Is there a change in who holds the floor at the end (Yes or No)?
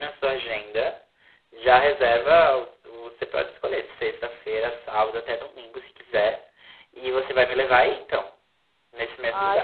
Yes